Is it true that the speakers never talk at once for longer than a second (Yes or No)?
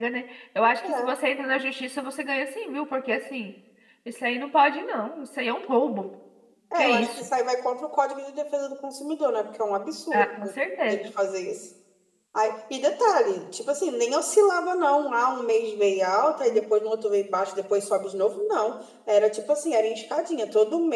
Yes